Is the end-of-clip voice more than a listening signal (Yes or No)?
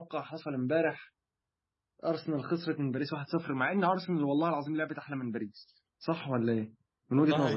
Yes